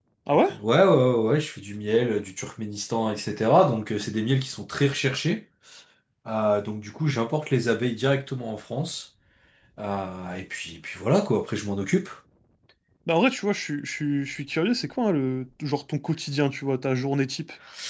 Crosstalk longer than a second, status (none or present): none